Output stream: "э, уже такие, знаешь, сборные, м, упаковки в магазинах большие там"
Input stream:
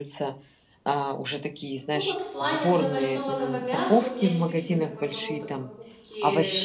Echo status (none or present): present